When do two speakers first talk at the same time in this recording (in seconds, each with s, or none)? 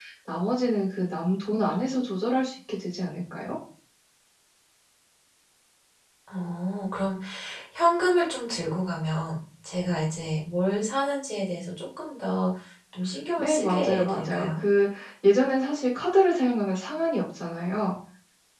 13.4 s